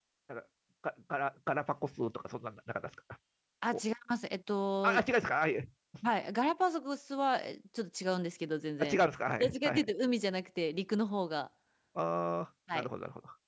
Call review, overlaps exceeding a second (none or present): none